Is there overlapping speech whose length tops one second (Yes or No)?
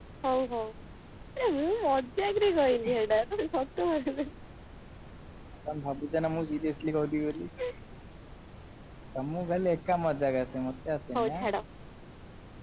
No